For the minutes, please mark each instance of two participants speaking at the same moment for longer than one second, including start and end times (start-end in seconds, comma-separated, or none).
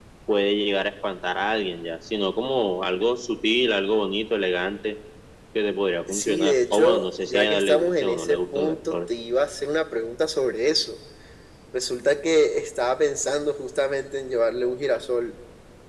6.1-9.0